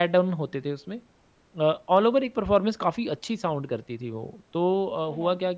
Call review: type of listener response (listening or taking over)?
listening